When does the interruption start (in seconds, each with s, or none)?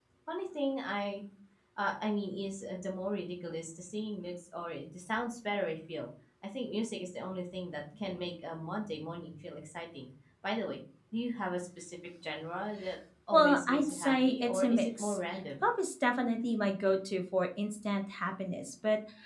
13.3 s